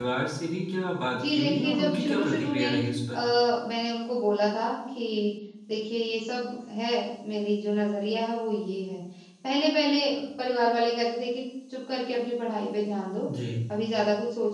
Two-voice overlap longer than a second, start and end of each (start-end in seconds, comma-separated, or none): 1.3-2.8